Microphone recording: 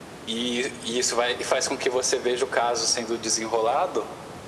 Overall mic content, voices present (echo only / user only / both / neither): echo only